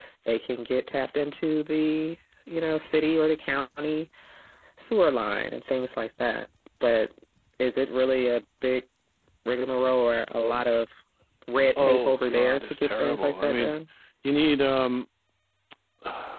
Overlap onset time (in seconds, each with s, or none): 11.8 s